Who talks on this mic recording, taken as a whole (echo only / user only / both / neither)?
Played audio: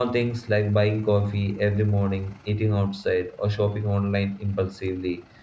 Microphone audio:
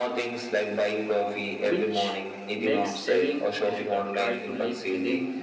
both